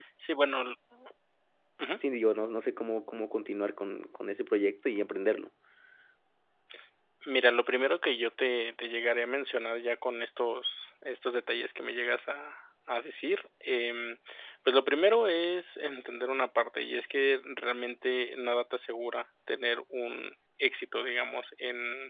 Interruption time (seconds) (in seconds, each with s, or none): none